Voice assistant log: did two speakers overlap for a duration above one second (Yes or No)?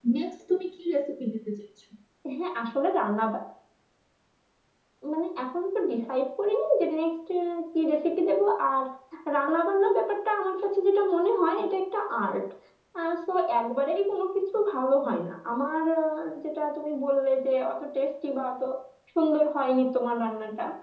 No